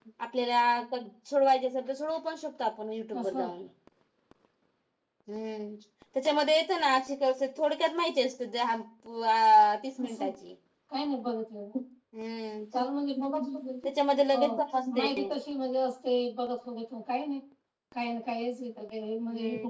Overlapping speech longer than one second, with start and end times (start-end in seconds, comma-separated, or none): none